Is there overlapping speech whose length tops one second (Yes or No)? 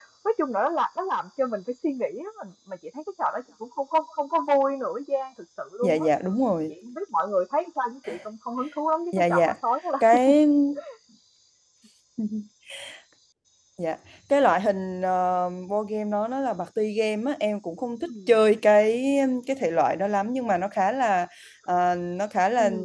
No